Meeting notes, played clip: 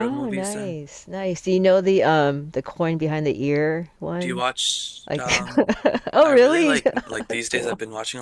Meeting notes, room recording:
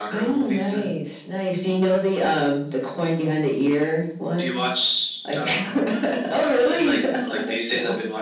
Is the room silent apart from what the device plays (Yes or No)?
Yes